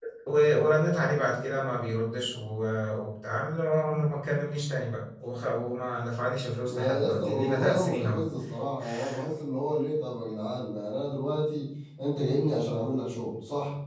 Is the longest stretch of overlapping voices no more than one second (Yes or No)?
No